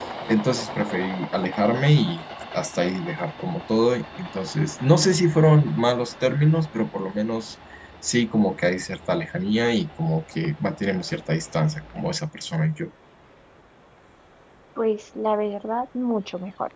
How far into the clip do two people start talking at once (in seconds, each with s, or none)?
none